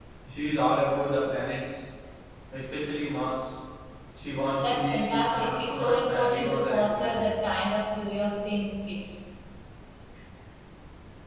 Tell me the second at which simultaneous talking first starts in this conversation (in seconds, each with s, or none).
4.6 s